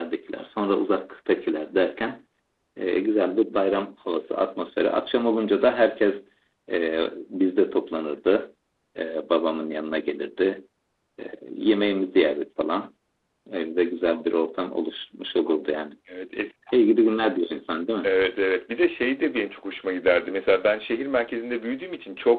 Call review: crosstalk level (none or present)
none